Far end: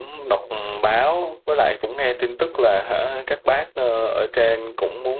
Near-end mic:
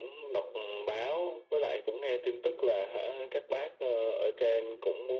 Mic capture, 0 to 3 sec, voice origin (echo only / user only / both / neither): echo only